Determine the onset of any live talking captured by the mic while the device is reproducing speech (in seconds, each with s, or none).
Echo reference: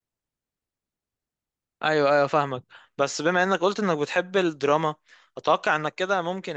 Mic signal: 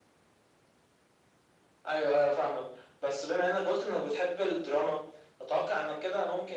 none